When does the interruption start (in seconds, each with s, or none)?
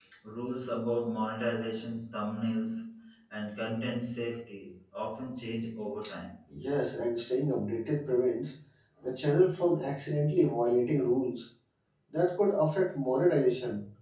none